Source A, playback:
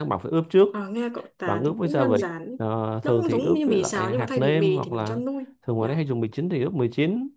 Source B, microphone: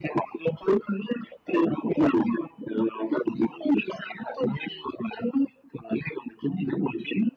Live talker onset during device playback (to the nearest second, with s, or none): none